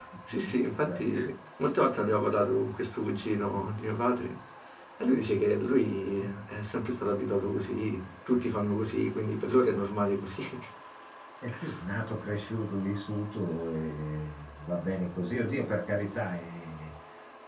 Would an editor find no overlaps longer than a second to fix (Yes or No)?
Yes